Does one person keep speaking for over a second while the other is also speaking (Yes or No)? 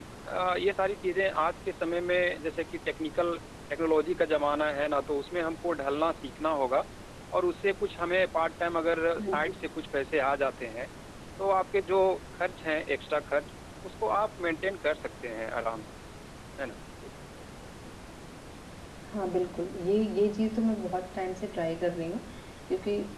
No